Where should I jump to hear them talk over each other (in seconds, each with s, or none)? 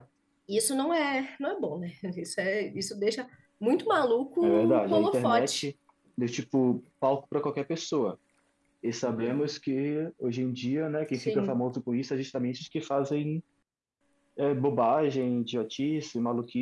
4.4 s